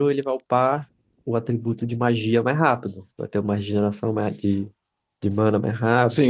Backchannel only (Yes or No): No